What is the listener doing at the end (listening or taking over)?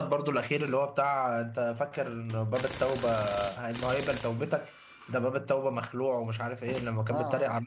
listening